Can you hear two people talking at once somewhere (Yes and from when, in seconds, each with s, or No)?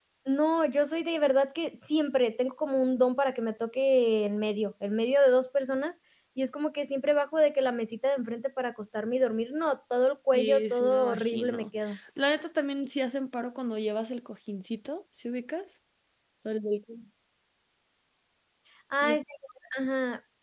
Yes, from 10.3 s